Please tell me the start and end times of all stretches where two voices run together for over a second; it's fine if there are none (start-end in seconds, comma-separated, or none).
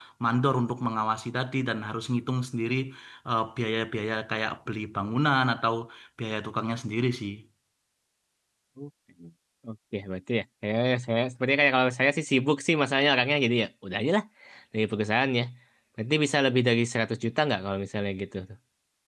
none